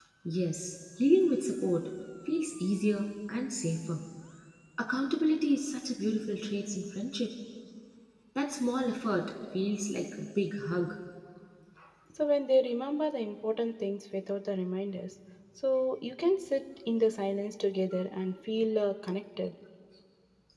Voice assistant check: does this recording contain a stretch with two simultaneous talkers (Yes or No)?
No